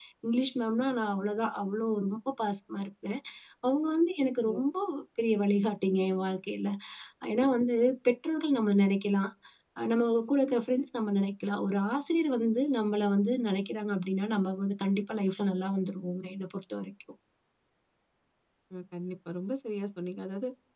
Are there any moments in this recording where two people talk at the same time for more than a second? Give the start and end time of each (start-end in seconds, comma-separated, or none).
none